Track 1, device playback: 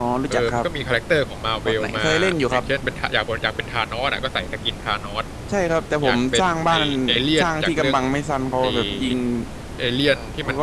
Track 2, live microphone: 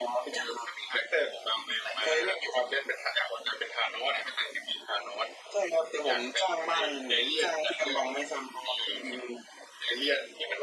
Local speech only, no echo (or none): none